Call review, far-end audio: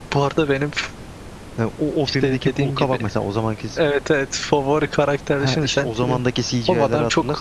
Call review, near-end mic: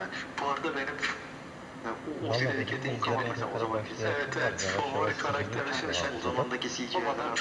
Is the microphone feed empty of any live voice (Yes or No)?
No